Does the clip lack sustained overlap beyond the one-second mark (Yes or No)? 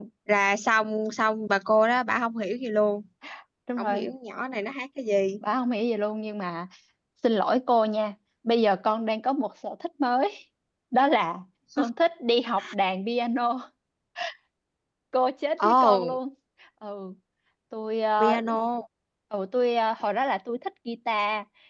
Yes